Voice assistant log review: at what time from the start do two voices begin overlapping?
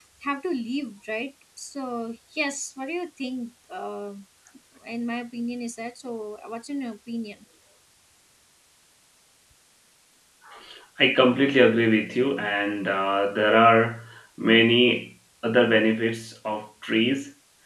none

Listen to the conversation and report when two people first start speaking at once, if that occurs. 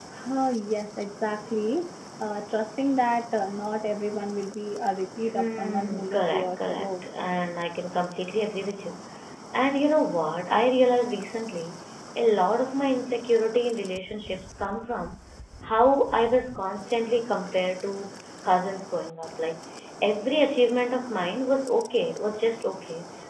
5 s

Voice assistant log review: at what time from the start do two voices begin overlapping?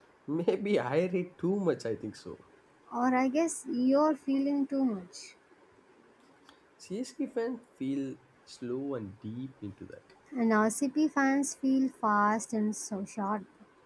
none

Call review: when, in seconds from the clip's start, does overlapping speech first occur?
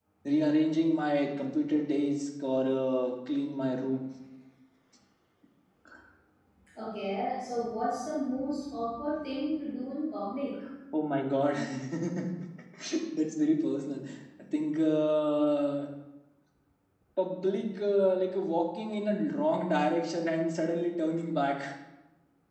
none

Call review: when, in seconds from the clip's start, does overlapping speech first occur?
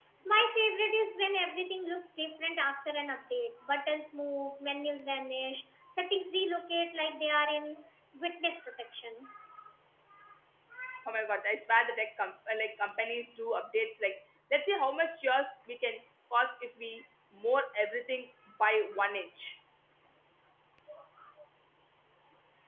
none

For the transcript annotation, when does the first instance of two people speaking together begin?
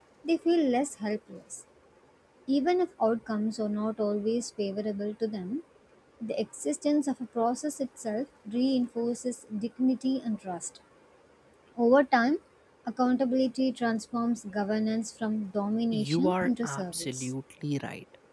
16 s

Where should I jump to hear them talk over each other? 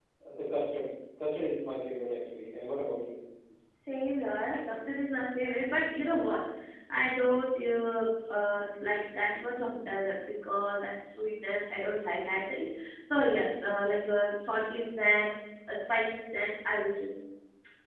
none

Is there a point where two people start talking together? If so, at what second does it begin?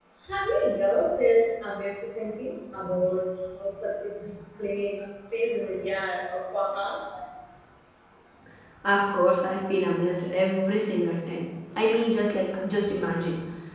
none

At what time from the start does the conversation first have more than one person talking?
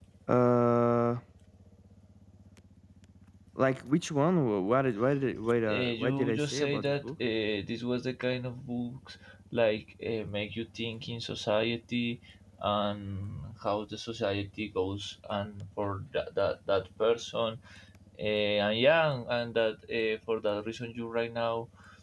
6 s

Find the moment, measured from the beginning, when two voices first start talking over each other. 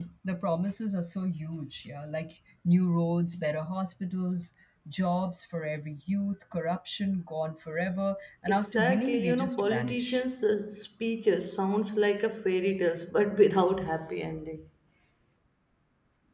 8 s

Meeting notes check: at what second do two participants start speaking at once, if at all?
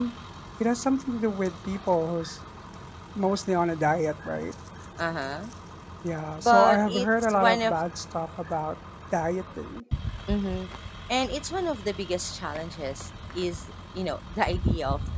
6 s

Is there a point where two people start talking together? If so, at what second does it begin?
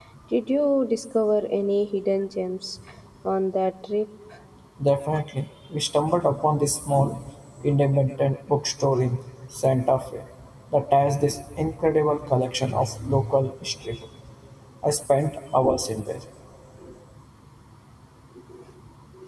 none

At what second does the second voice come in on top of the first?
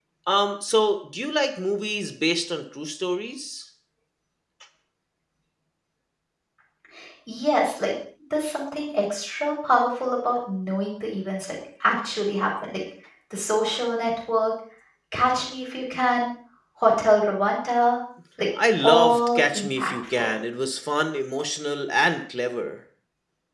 19 s

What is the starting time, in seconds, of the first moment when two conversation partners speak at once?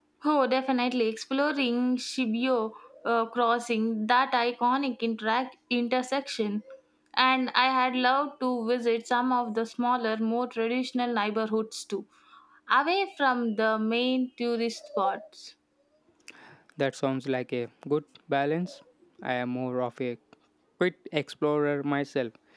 none

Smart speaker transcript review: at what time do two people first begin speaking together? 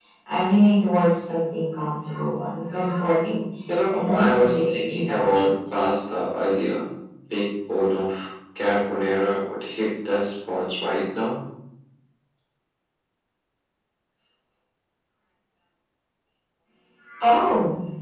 4 s

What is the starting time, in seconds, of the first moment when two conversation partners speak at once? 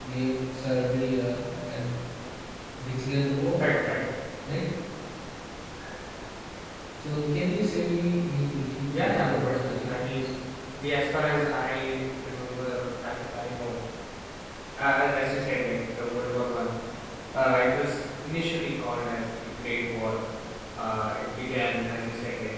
9 s

